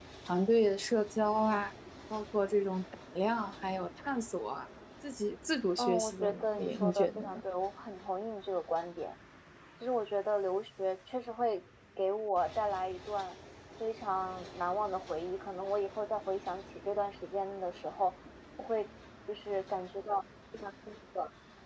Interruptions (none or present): present